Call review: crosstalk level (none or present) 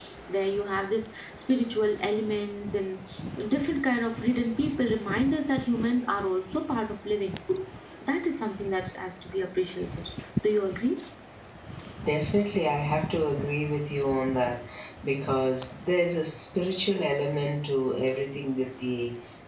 none